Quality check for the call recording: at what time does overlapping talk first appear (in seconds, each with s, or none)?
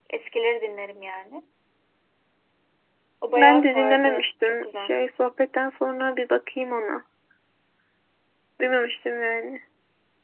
3.4 s